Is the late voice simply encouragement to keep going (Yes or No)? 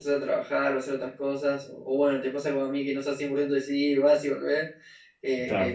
Yes